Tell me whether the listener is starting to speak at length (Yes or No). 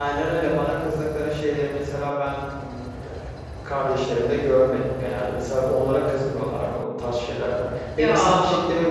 No